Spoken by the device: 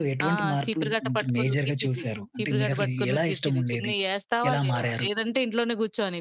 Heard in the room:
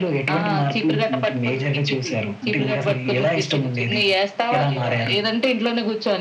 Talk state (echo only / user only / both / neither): echo only